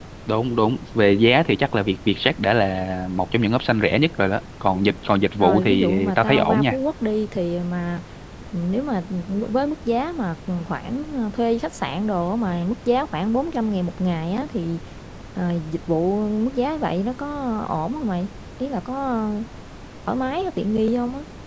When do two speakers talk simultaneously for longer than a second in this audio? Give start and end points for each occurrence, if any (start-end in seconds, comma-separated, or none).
5.4-6.8